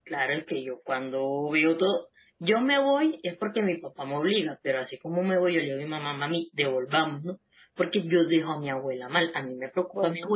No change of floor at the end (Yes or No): Yes